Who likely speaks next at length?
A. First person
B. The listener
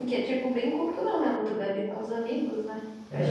B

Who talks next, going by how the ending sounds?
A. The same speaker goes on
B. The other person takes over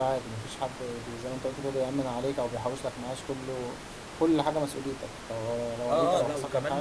B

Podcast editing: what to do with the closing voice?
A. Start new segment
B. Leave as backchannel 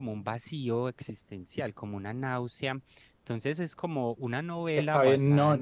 A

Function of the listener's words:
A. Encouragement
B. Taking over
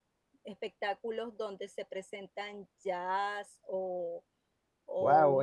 B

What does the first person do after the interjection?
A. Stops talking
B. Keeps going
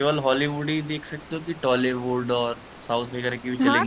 A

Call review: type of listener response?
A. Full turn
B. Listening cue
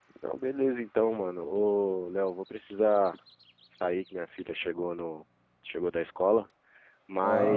B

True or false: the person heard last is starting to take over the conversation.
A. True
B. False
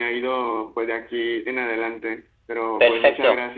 A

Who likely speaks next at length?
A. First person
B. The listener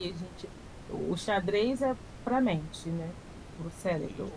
A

